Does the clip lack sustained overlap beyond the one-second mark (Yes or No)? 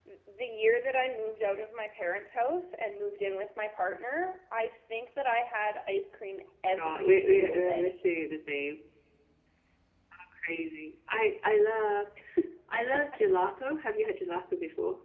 No